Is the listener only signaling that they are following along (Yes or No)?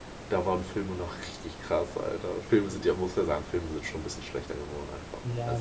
No